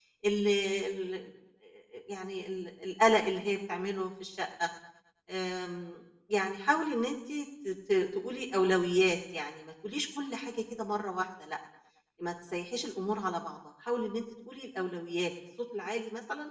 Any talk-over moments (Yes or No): No